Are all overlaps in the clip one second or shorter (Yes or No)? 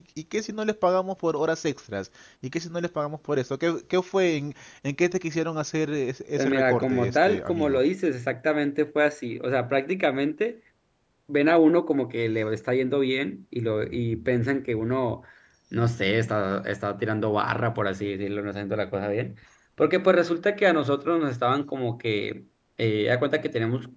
No